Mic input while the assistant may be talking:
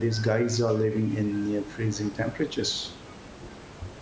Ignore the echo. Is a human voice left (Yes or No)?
Yes